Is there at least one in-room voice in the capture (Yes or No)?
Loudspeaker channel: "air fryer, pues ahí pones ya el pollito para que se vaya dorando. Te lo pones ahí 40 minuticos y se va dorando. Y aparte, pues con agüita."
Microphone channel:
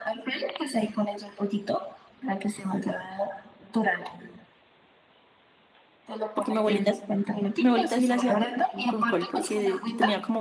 Yes